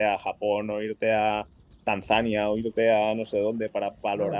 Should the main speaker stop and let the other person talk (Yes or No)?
Yes